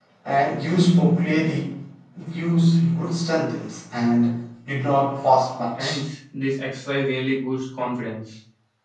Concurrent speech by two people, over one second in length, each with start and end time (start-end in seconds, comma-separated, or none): none